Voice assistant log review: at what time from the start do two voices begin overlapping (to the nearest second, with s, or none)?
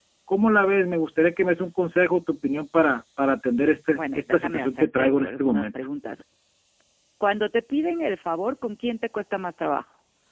4 s